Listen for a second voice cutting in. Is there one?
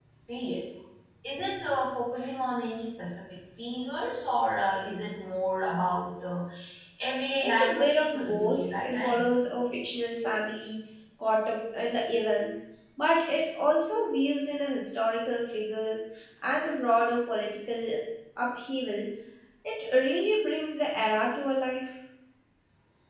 Yes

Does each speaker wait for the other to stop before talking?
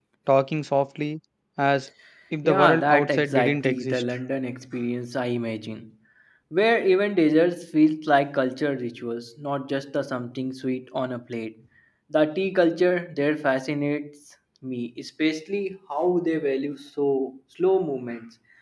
No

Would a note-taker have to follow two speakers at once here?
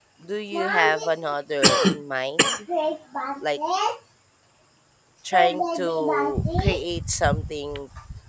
Yes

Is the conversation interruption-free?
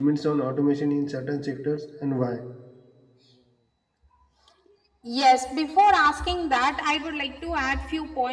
Yes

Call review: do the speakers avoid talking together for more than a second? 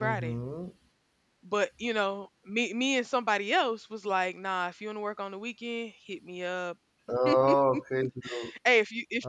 Yes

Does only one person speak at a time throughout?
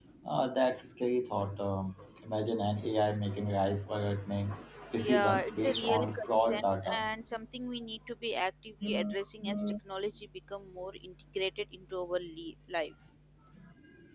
No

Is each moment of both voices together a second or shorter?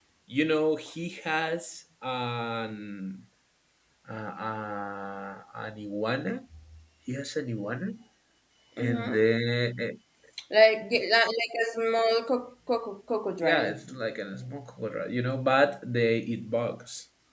Yes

